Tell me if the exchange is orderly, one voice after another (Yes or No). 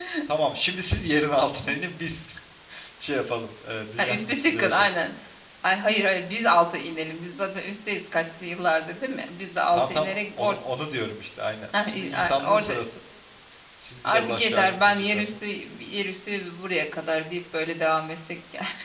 No